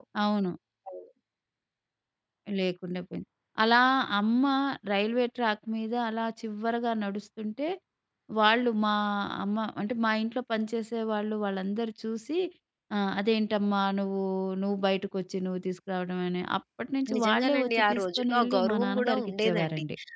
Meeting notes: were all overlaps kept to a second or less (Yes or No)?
No